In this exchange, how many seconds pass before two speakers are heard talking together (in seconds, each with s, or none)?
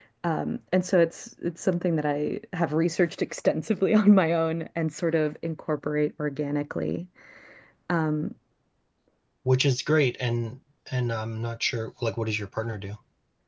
none